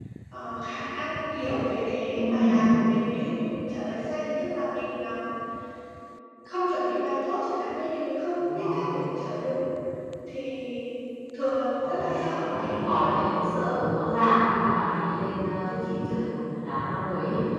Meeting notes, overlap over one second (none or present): present